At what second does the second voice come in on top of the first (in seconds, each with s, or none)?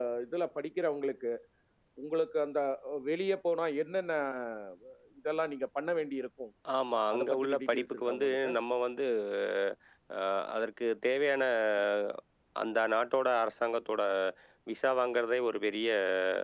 7.1 s